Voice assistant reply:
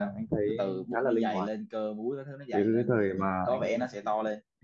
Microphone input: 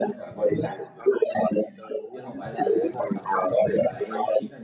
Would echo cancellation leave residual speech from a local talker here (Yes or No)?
Yes